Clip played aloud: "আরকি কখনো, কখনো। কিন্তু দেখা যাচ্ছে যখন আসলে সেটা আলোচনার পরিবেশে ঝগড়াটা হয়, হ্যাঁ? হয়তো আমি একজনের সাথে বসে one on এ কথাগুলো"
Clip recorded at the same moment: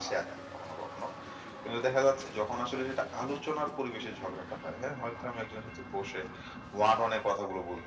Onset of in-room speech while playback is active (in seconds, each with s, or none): none